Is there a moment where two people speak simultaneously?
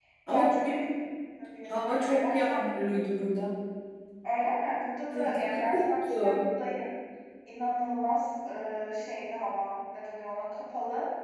Yes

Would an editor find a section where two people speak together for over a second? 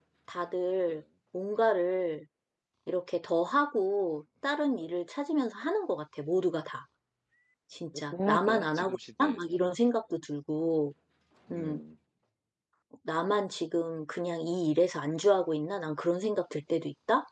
Yes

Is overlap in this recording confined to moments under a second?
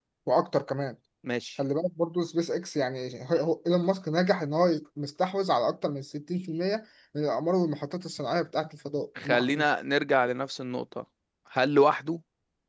Yes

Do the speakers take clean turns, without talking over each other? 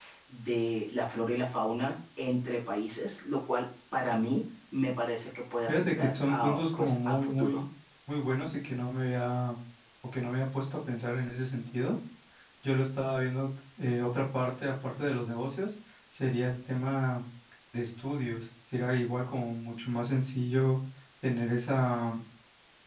No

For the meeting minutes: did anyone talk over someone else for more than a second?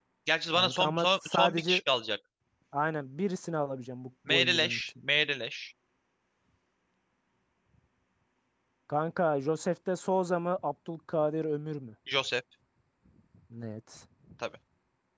Yes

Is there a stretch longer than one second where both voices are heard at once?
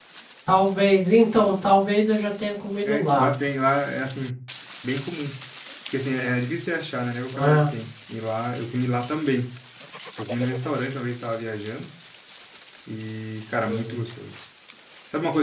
No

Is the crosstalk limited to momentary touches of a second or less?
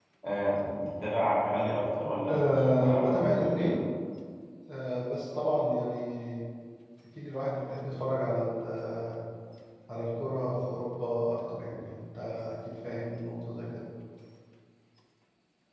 No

